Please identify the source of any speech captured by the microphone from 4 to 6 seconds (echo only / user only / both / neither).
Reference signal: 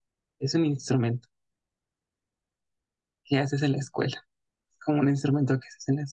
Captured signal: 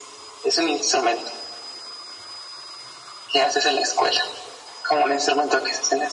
echo only